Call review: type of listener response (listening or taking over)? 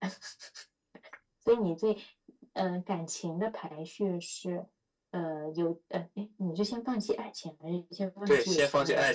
taking over